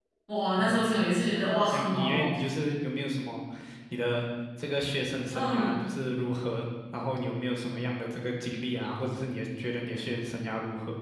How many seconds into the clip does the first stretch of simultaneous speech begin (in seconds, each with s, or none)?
0.6 s